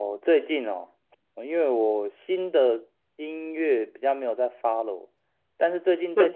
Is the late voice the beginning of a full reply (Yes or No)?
No